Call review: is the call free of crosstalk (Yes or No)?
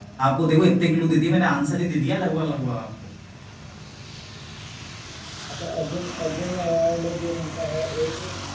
Yes